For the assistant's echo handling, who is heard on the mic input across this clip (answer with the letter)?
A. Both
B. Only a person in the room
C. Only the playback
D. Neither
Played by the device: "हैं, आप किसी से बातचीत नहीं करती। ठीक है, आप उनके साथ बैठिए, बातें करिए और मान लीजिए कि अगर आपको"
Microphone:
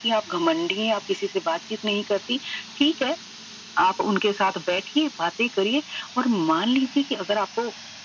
C